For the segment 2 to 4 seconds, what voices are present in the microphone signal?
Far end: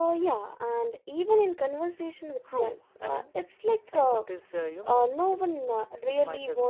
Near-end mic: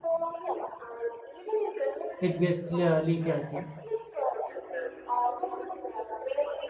both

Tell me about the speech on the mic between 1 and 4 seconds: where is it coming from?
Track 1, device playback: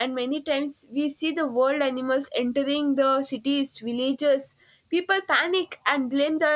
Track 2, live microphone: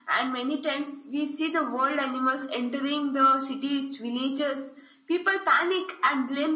echo only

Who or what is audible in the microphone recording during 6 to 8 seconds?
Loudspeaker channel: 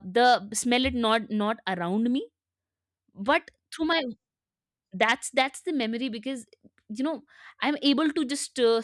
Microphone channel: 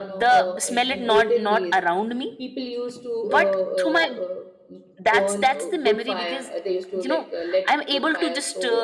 both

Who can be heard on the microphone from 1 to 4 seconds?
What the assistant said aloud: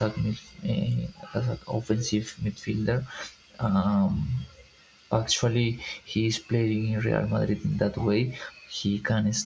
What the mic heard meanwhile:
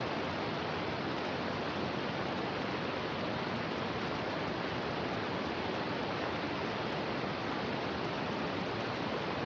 neither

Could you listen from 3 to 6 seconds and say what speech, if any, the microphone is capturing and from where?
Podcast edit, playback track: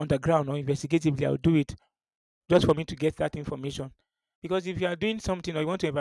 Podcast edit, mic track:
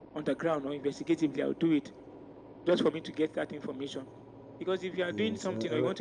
both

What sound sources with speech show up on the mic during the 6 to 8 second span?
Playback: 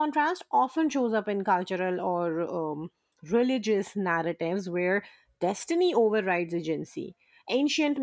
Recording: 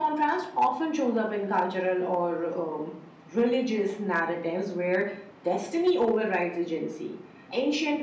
echo only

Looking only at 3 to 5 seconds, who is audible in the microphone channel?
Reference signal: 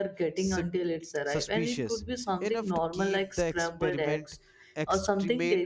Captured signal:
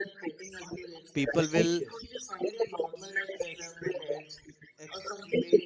echo only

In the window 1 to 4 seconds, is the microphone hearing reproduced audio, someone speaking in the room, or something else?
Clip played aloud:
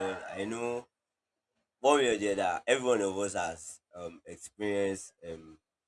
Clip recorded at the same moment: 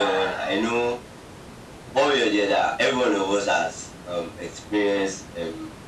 echo only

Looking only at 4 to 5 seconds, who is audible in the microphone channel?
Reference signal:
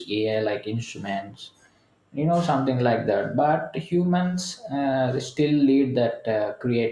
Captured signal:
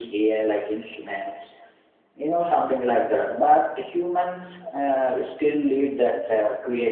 echo only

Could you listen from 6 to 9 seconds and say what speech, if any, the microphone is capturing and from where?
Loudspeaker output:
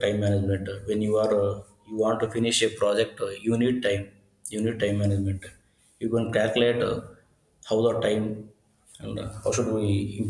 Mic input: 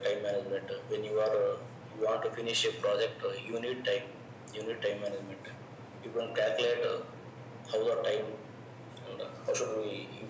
echo only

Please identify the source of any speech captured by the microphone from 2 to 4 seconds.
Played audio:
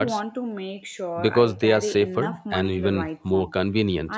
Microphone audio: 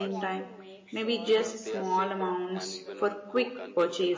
both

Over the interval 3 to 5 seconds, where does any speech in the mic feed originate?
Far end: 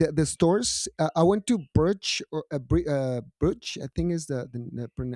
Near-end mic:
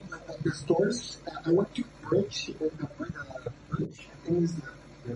echo only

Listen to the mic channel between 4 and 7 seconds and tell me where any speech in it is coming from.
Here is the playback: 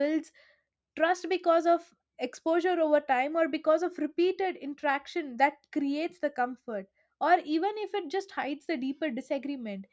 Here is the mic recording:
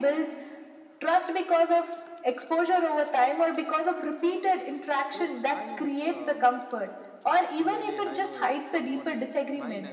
both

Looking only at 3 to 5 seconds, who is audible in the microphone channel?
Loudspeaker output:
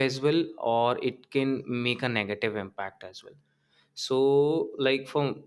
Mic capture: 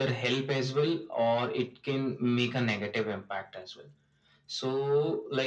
echo only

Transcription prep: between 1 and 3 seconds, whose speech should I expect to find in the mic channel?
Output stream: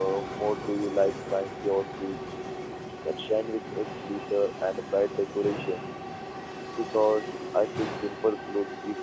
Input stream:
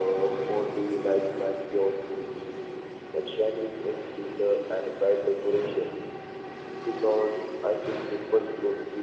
echo only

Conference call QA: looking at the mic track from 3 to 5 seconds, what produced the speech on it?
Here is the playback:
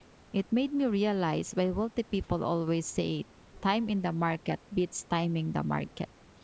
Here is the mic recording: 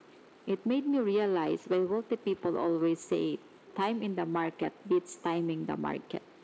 echo only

